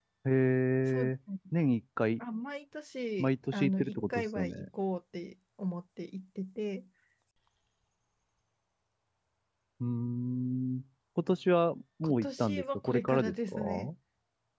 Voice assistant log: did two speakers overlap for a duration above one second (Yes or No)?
Yes